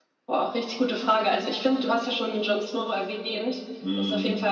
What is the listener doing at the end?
listening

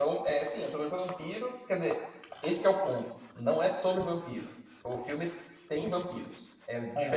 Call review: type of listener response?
listening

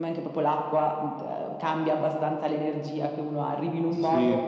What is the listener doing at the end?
taking over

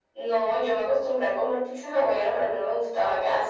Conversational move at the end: taking over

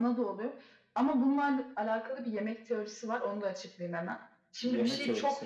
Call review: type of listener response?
listening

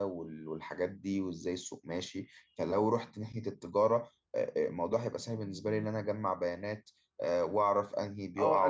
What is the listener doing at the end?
taking over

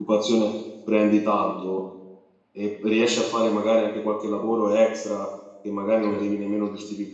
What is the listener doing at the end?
listening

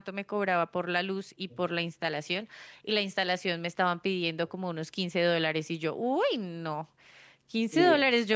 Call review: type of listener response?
listening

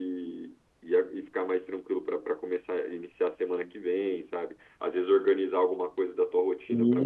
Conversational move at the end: listening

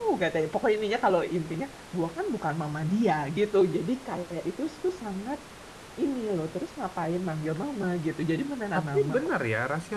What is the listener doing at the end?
taking over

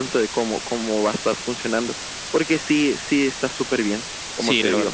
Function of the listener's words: taking over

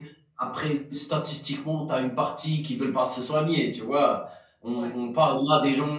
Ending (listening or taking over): listening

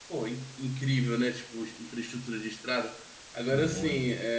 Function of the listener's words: listening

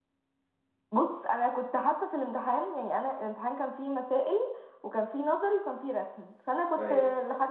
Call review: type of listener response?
listening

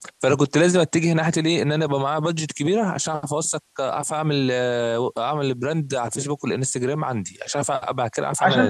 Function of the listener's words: taking over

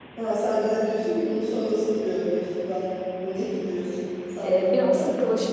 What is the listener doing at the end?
taking over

